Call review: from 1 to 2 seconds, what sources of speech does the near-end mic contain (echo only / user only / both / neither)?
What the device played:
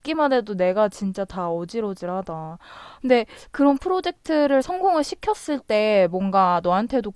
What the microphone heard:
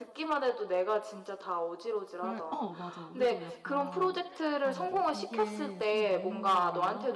echo only